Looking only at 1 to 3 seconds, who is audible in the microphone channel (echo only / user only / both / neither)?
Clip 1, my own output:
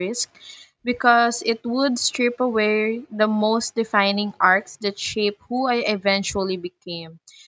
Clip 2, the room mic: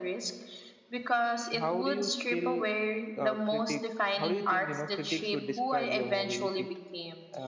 both